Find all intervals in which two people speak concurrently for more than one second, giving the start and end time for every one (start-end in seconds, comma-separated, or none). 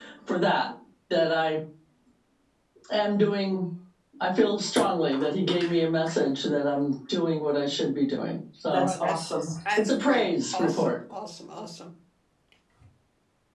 8.7-11.0